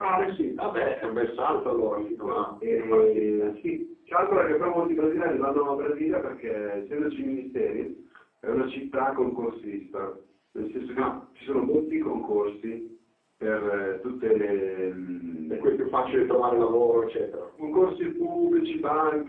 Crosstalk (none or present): present